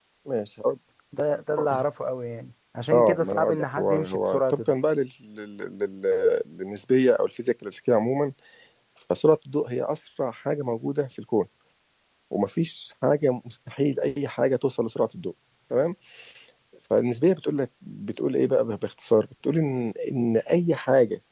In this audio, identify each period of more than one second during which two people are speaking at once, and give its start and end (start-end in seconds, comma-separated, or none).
2.9-4.7